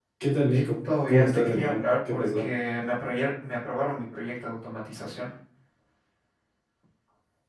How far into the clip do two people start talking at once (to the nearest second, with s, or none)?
1 s